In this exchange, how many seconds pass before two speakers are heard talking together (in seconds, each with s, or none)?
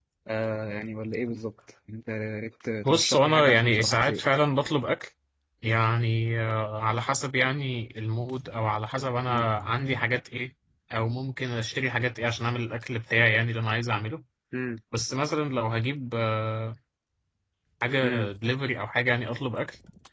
2.8 s